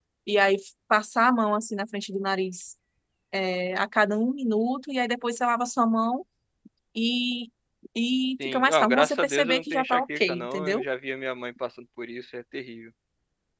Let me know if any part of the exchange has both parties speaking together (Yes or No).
Yes